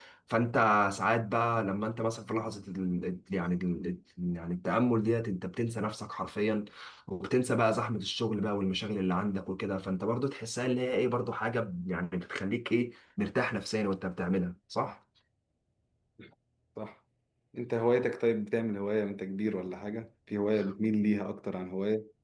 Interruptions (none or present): none